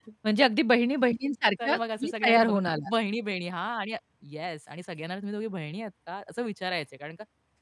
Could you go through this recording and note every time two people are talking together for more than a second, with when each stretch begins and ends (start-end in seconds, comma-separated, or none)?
1.6-2.9